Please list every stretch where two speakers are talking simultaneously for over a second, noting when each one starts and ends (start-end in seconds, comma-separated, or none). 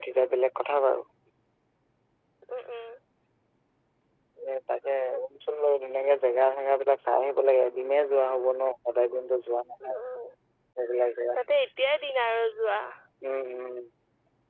none